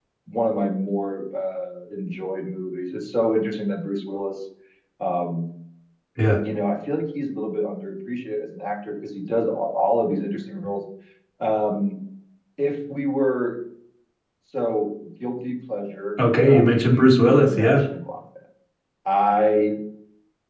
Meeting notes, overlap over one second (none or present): present